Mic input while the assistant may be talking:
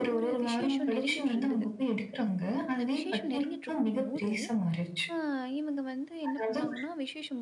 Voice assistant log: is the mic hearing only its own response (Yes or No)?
No